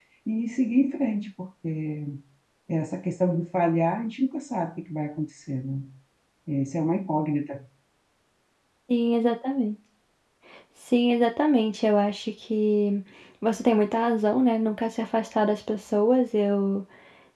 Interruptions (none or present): none